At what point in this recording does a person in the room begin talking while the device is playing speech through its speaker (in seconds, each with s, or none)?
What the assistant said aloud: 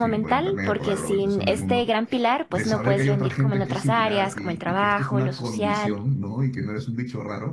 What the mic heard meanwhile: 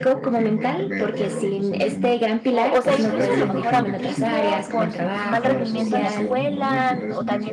2.5 s